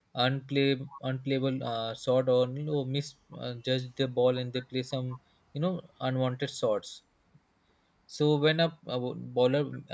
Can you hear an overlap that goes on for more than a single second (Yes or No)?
No